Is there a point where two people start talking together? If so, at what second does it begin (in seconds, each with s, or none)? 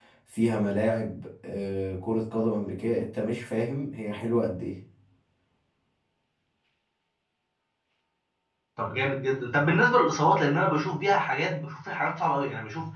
none